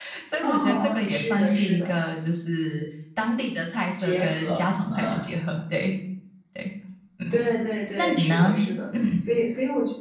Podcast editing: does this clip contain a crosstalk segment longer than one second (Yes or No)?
Yes